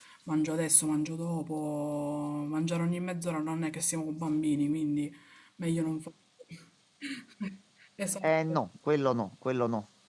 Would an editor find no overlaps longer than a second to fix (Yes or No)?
Yes